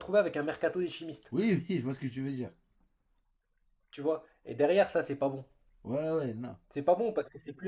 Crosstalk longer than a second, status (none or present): none